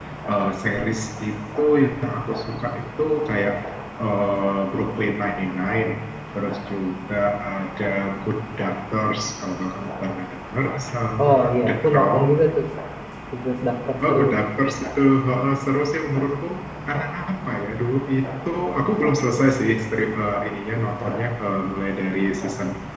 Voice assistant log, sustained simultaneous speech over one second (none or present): present